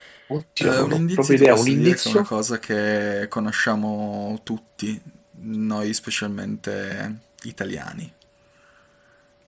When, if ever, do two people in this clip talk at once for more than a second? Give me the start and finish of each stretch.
0.6-2.2

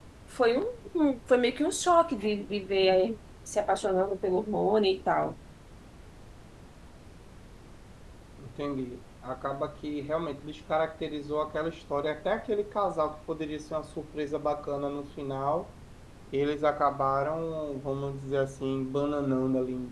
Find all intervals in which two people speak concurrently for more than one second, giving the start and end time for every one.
none

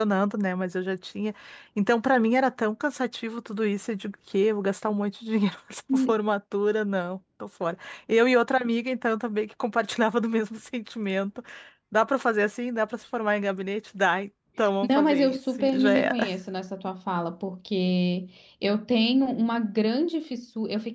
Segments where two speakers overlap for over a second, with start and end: 14.9-16.3

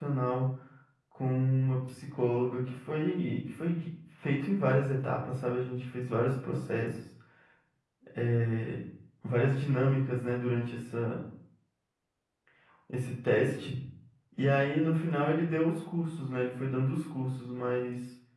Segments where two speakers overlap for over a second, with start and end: none

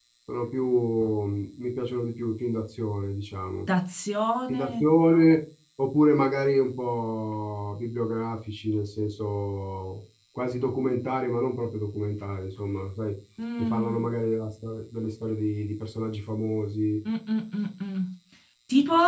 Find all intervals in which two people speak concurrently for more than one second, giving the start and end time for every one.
none

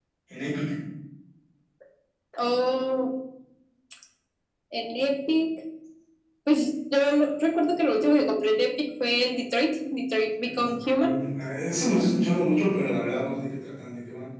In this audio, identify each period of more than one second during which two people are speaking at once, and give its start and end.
none

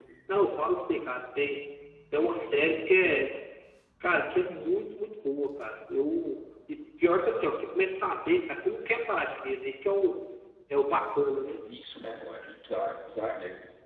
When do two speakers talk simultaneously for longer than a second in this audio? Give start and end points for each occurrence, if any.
none

